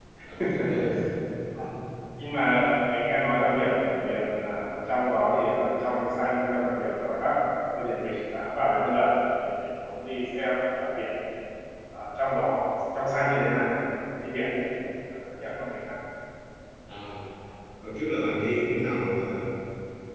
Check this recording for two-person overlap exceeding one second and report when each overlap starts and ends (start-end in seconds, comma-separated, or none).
none